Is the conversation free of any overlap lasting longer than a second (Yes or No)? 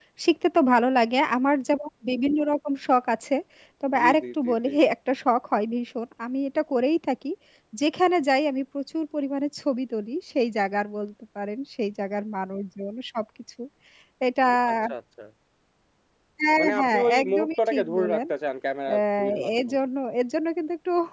No